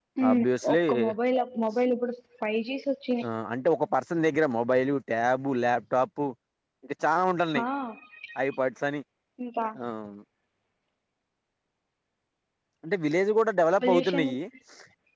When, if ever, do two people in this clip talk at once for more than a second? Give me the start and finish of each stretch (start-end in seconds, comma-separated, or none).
none